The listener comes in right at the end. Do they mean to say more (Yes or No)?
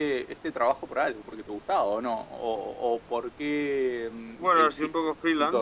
Yes